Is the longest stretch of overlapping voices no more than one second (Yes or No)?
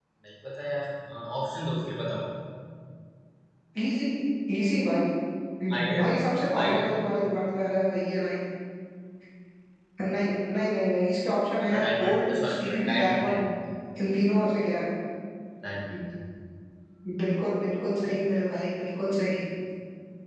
No